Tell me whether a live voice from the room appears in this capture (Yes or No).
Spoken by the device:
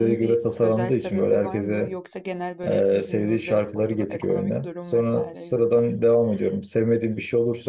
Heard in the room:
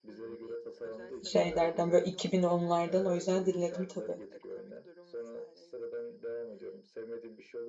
Yes